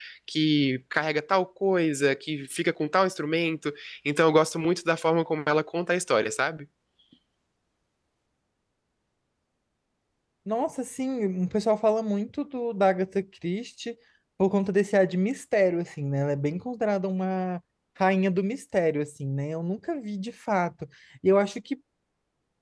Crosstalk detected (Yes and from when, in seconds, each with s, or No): No